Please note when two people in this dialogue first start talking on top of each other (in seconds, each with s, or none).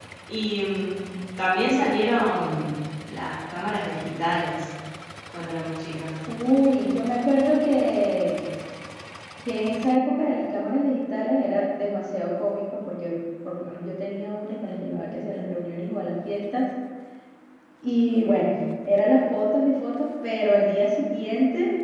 none